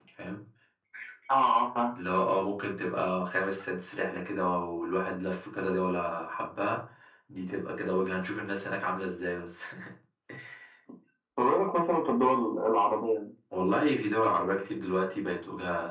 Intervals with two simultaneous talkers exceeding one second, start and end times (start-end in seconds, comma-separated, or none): none